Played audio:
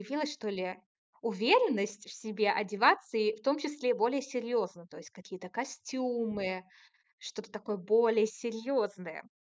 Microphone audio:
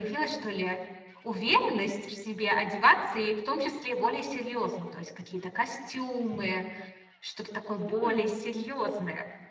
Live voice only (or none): М.